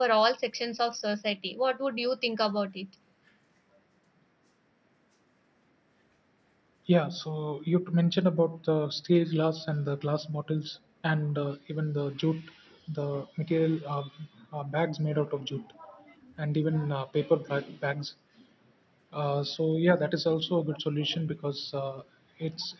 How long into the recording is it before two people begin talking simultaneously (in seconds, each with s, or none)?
none